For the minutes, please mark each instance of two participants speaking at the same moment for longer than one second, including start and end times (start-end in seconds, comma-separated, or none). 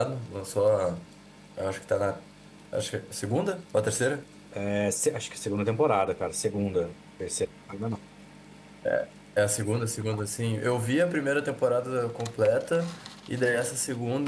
none